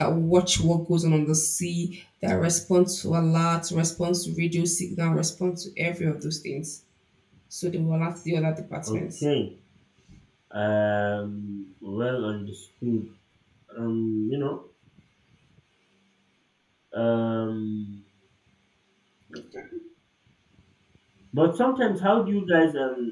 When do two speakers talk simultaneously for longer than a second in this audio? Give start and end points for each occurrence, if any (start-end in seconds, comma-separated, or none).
none